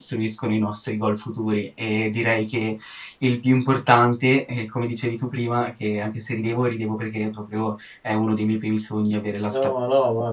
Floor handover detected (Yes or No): Yes